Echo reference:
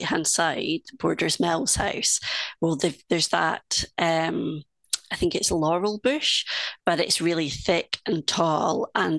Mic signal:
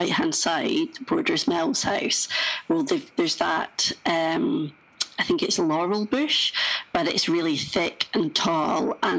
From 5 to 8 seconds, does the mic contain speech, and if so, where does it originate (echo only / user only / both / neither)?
echo only